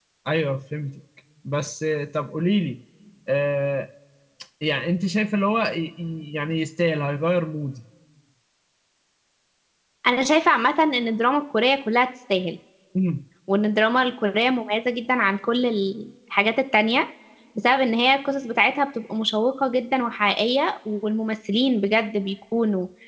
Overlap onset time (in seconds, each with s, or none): none